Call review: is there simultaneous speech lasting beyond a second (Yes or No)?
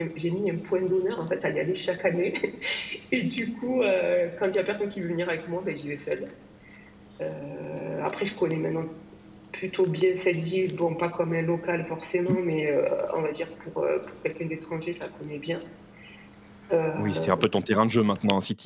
No